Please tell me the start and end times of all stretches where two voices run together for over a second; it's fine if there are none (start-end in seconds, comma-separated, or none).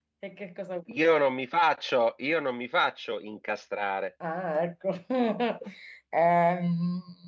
none